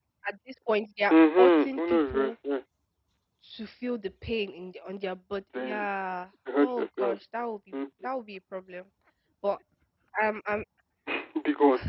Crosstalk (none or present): present